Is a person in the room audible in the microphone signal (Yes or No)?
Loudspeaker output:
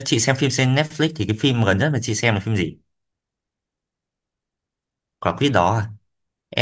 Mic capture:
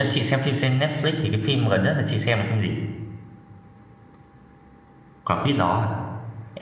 No